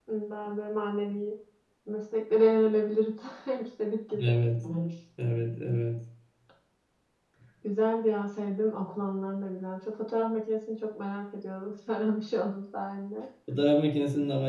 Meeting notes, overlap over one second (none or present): none